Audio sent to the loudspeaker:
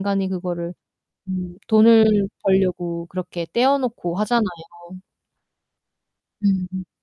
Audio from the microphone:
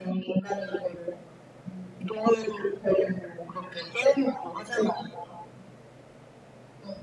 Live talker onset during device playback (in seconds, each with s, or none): none